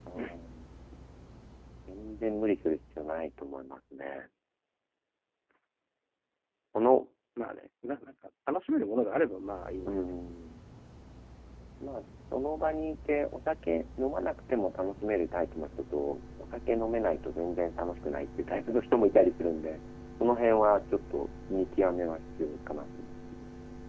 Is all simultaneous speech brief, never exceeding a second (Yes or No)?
Yes